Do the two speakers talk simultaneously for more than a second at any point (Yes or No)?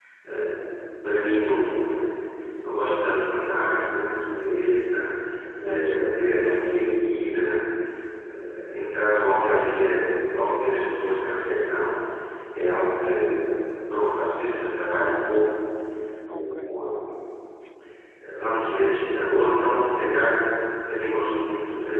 No